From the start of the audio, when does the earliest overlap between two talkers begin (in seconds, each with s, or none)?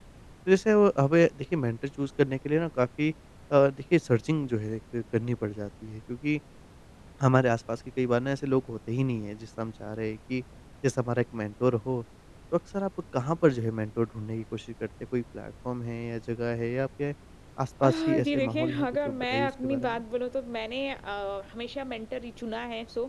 17.8 s